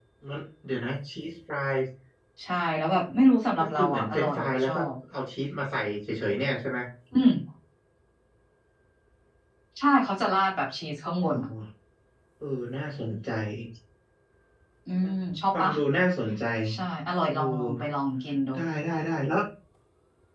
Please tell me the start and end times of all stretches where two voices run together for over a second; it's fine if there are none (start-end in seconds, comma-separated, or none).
3.6-4.8